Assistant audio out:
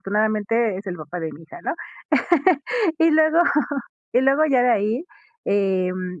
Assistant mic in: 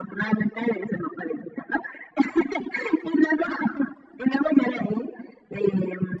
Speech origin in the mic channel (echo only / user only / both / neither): echo only